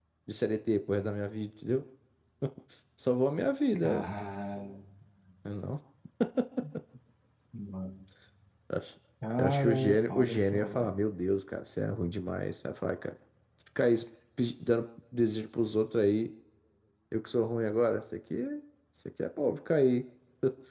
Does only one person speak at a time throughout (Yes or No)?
No